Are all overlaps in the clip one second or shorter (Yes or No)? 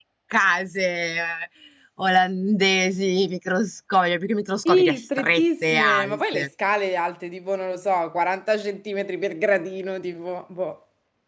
No